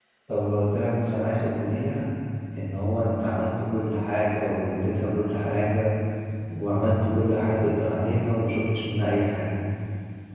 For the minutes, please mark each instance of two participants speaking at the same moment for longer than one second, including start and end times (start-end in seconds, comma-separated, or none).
none